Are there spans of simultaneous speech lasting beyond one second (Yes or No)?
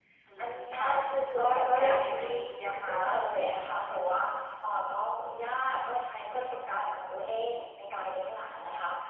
Yes